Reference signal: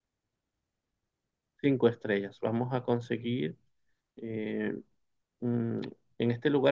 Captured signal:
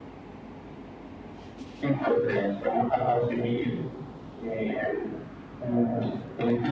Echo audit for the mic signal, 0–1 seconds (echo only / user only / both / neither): neither